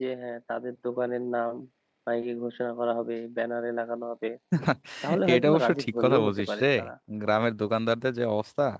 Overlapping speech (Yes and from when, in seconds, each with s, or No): Yes, from 5.3 s